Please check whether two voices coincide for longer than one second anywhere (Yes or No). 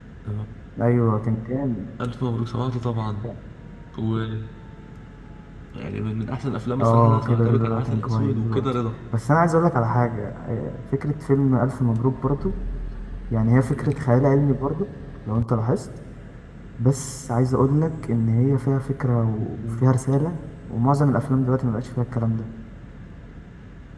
Yes